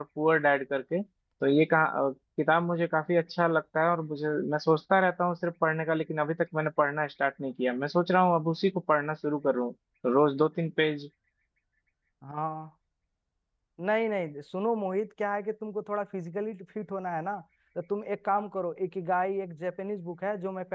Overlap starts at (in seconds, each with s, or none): none